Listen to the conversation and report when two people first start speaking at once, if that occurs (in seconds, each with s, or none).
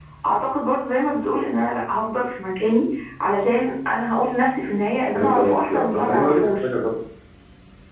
5.1 s